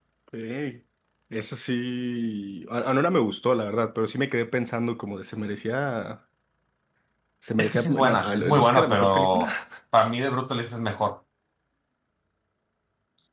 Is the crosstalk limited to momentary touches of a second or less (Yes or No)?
No